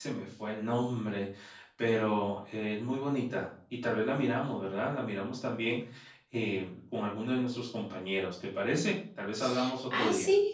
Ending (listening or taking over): taking over